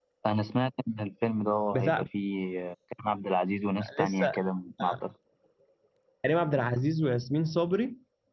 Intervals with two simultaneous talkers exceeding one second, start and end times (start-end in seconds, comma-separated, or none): none